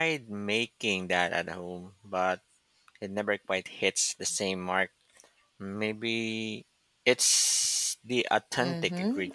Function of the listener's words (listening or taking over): taking over